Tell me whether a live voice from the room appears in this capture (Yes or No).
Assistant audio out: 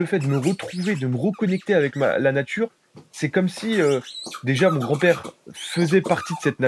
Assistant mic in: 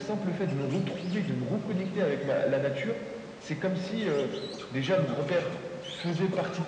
No